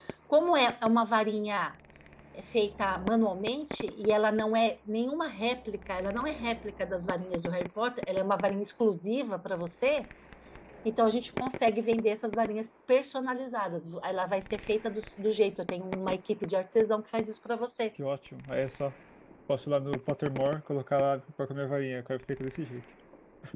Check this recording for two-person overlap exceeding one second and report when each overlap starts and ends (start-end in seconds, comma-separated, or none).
none